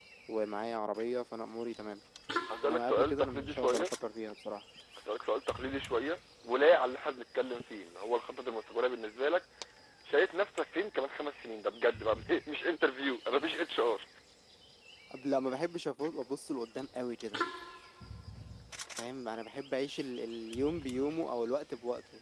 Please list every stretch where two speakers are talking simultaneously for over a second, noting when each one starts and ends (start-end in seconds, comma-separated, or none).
2.6-3.9